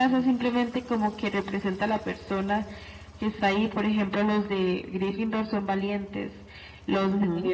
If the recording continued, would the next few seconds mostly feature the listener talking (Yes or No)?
No